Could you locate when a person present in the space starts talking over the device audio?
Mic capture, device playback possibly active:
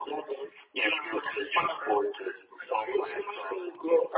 none

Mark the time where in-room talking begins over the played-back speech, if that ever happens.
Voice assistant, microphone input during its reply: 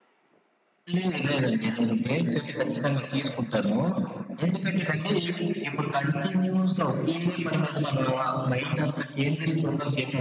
none

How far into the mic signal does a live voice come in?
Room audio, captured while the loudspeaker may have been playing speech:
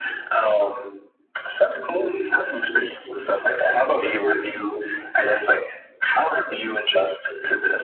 none

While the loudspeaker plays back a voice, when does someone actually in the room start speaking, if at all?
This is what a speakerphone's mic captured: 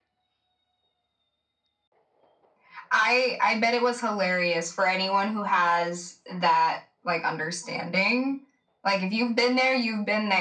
none

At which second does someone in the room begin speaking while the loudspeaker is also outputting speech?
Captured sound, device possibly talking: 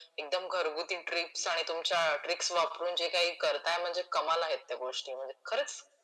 none

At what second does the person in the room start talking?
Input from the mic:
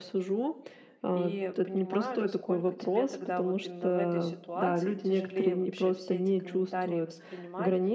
1.1 s

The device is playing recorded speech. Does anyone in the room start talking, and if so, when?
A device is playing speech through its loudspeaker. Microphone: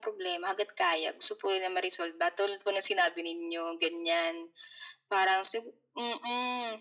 none

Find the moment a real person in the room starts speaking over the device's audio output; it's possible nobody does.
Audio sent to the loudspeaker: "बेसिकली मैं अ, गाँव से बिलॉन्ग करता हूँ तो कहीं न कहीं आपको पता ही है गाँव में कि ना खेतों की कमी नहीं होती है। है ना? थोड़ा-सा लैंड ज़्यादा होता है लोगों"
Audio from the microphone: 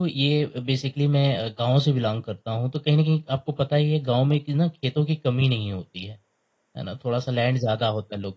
none

